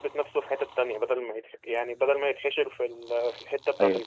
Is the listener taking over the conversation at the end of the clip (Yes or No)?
Yes